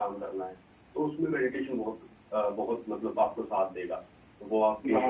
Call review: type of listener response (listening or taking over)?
taking over